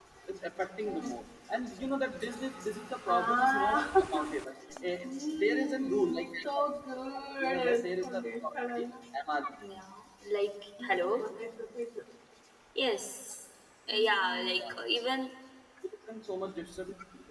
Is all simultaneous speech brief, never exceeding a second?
No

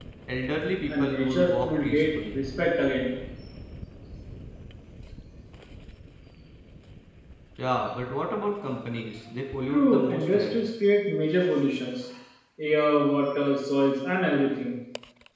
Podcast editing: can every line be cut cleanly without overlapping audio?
No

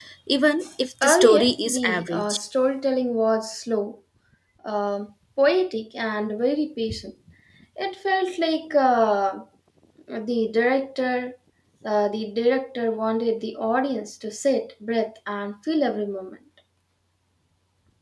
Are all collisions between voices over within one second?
No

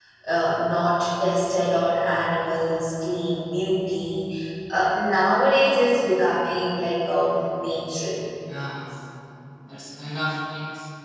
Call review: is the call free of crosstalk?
Yes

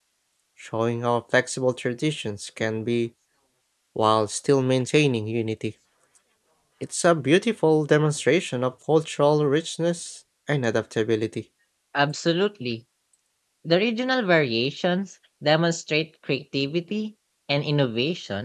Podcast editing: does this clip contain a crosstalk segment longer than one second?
No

